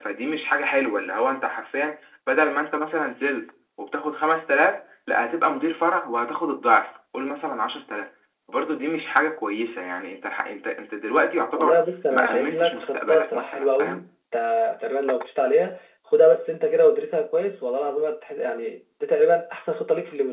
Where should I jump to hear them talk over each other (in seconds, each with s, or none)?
11.6 s